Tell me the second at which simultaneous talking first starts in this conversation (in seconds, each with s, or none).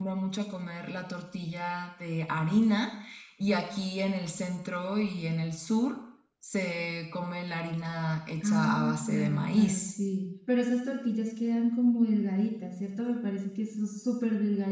8.4 s